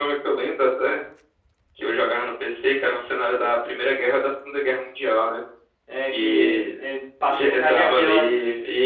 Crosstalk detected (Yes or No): Yes